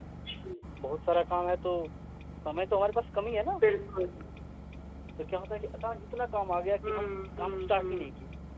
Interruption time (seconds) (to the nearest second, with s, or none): 7 s